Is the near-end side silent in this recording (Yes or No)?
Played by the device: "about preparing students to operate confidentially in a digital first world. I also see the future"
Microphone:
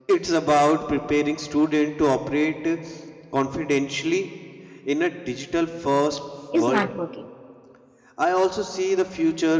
No